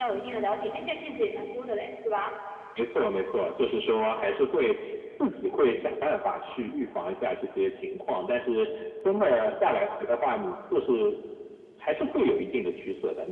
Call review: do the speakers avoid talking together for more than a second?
Yes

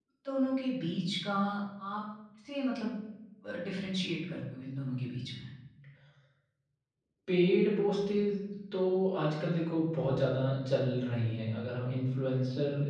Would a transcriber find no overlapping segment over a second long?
Yes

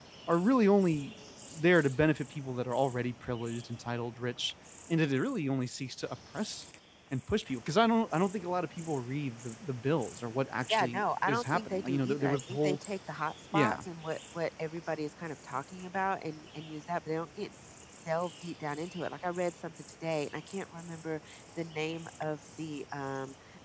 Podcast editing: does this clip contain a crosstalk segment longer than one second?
Yes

